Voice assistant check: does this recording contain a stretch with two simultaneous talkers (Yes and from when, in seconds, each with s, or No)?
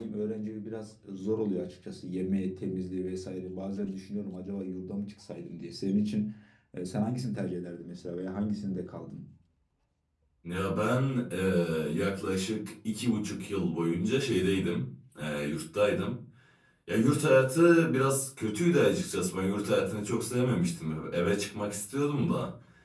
No